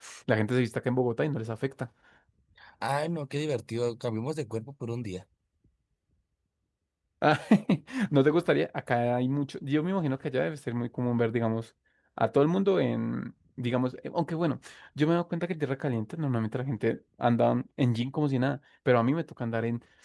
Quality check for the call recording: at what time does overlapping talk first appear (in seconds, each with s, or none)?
none